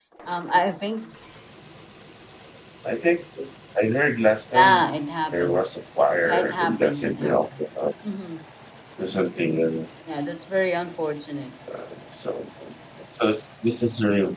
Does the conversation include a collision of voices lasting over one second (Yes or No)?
Yes